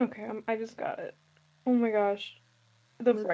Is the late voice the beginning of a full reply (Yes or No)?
No